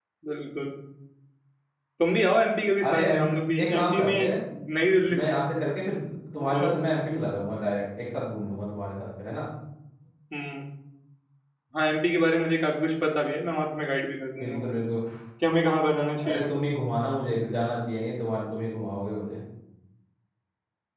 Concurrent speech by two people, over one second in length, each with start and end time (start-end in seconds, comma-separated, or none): 2.8-4.3